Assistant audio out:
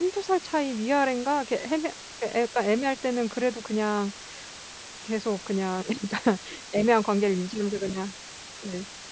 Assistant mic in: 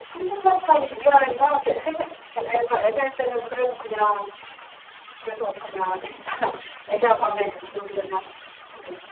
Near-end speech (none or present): none